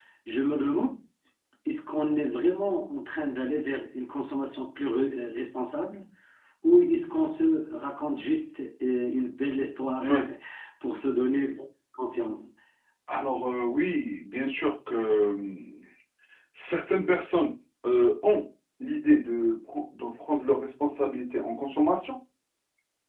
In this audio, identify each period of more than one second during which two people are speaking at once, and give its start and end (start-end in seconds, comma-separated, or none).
none